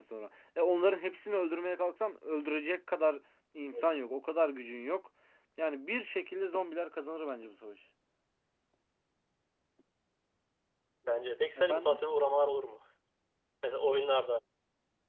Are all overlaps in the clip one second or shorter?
Yes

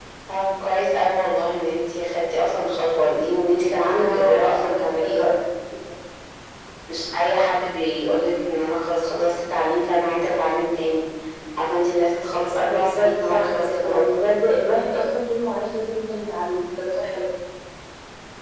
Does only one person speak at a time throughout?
No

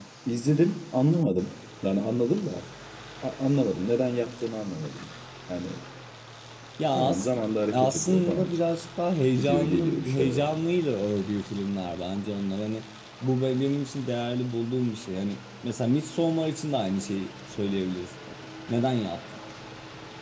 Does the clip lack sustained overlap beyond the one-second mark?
No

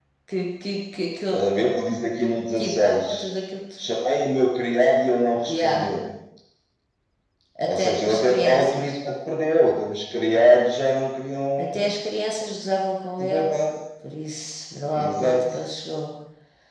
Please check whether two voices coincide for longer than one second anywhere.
Yes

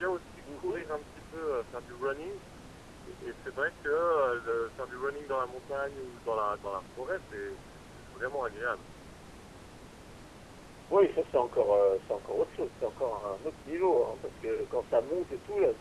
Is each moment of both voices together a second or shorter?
Yes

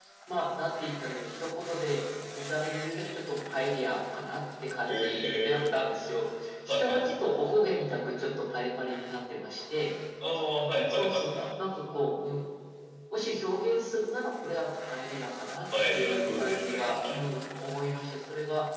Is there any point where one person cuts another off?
Yes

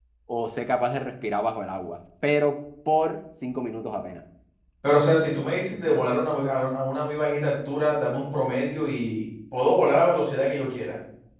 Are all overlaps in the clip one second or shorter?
Yes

